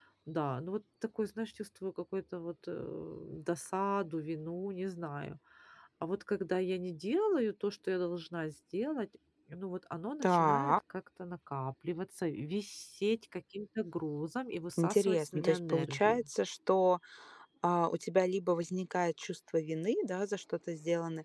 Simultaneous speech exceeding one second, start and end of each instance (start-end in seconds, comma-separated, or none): 14.8-16.3